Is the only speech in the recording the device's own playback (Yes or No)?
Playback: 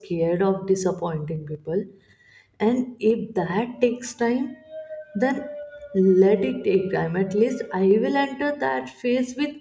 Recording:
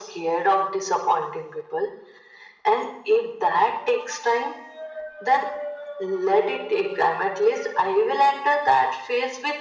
Yes